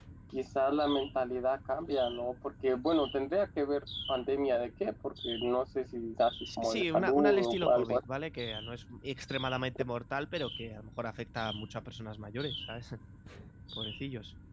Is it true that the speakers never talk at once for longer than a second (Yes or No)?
No